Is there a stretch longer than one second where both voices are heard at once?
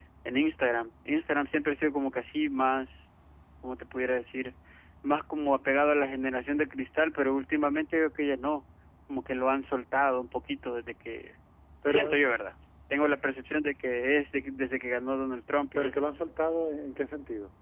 No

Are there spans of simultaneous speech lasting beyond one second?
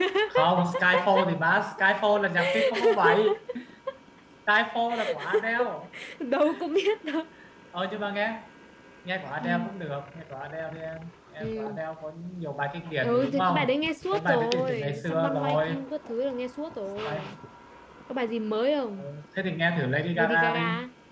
Yes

